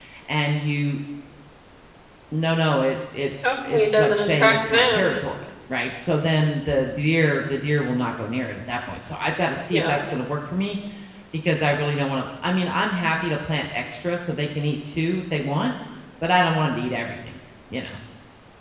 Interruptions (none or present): present